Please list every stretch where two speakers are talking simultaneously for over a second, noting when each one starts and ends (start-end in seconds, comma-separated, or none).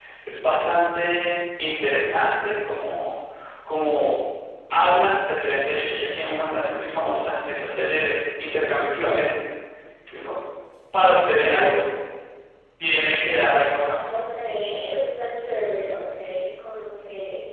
none